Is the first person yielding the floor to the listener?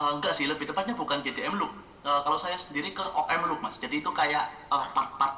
No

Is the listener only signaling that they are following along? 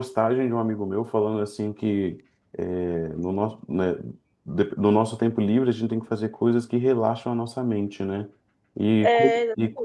Yes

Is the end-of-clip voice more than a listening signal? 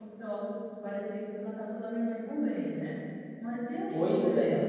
No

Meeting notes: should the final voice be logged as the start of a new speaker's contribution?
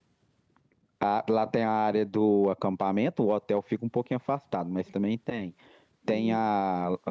No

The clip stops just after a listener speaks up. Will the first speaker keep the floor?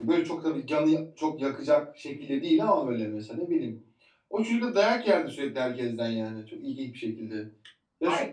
No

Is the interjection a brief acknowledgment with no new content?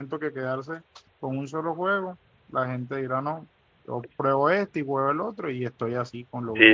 No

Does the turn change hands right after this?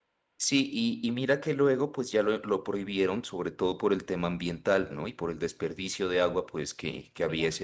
No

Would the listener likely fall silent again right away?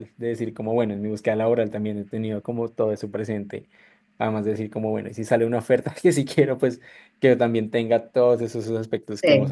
No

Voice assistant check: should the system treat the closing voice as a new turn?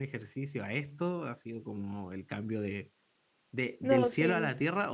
No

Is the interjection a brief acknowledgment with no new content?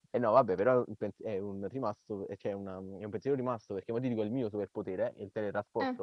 Yes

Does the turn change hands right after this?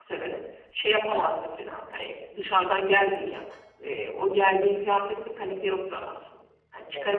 No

